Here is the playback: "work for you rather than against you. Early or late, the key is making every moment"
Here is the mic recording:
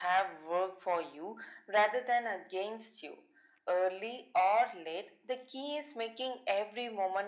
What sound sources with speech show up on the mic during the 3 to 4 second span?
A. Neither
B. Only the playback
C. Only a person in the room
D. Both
B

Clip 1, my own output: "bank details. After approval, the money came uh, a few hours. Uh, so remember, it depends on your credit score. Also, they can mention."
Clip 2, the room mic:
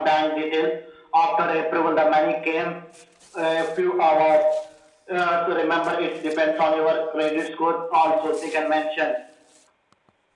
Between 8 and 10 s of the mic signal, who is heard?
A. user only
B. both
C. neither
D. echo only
D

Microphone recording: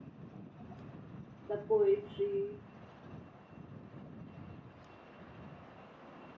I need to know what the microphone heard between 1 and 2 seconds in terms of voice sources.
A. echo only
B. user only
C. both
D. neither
B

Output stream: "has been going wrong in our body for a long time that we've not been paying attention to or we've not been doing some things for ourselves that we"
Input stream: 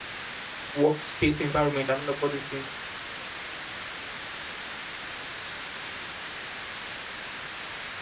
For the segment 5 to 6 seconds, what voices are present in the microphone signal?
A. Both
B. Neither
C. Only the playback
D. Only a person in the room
B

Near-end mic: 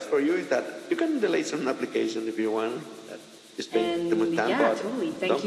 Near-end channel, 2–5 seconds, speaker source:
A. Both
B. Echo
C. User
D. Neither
A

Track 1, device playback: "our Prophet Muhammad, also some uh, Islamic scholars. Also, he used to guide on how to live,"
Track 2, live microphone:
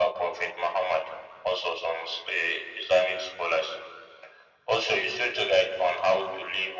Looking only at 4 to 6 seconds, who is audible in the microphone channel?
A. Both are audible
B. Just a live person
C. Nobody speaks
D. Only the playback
D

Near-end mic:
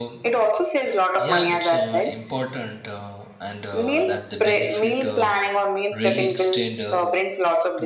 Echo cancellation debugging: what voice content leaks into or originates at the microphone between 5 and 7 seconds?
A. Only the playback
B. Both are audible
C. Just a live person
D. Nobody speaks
B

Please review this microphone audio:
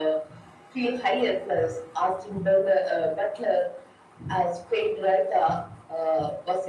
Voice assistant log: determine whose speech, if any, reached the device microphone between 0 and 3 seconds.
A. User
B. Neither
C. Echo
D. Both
C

